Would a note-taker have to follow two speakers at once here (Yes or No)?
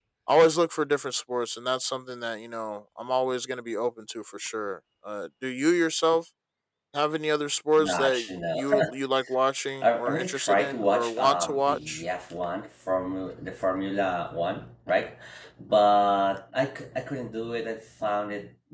Yes